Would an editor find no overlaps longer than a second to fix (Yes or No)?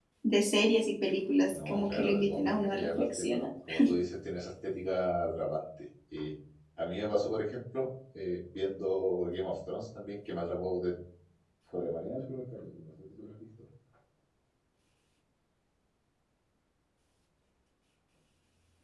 No